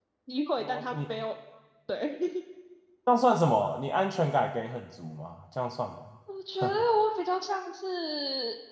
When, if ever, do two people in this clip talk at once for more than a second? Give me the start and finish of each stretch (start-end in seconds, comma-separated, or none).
none